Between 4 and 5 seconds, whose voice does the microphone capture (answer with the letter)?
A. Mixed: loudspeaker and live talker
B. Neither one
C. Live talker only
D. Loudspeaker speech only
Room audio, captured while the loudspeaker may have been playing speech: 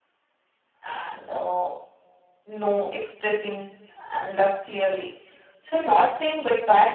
C